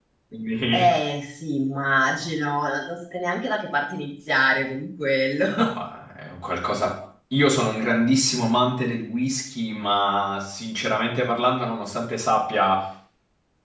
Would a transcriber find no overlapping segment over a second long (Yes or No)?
Yes